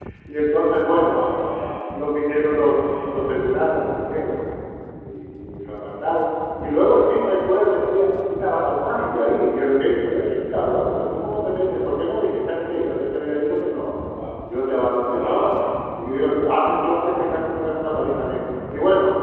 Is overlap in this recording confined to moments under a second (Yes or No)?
Yes